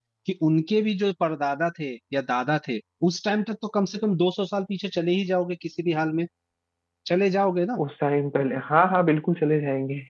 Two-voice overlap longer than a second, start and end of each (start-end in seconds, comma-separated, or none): none